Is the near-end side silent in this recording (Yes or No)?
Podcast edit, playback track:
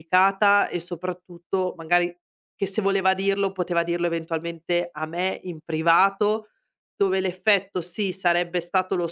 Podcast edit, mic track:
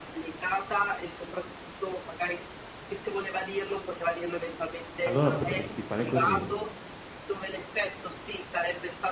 No